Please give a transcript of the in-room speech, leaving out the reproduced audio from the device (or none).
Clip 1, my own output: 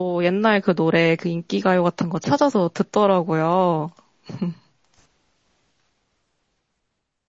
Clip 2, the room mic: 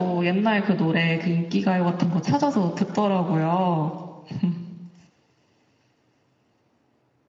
none